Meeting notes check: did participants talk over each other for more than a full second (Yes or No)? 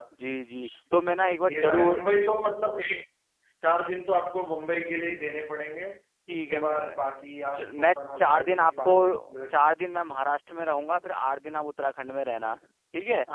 Yes